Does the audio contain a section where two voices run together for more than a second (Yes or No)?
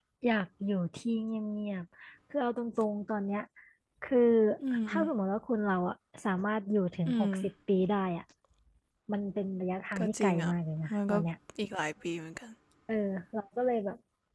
No